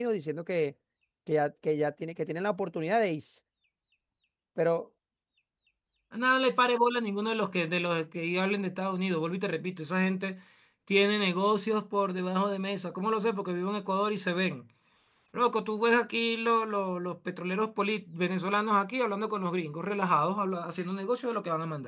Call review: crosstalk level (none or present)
none